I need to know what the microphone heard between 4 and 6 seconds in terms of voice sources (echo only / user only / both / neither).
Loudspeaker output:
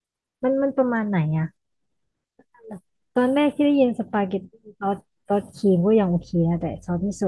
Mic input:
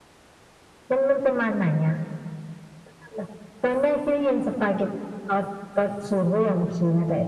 echo only